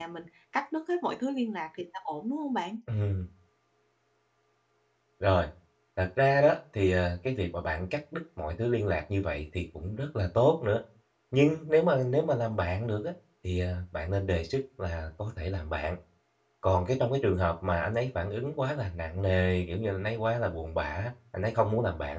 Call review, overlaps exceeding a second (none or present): none